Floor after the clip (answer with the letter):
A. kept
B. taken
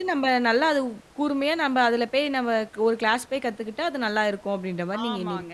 B